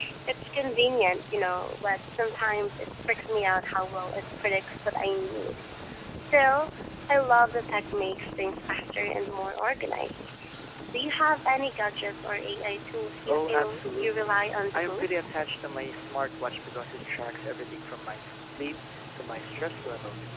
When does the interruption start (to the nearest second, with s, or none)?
13 s